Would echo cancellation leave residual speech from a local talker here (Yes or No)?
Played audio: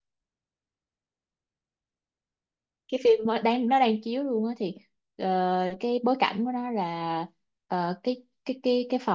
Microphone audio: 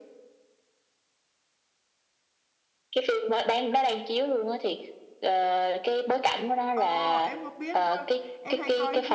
Yes